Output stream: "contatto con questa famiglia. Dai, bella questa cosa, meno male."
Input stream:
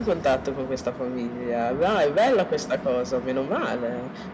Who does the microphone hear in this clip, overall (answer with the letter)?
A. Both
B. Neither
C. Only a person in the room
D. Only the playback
D